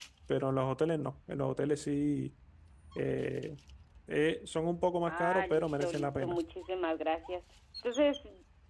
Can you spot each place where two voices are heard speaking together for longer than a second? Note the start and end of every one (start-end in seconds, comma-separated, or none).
5.1-6.4